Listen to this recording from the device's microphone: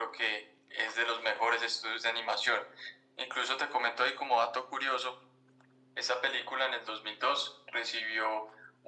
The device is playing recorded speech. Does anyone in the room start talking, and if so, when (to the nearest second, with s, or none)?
none